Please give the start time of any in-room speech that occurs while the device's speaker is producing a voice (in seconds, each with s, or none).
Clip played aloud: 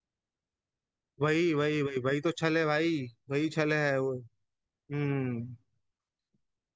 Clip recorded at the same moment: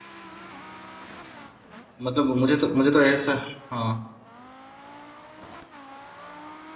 2.1 s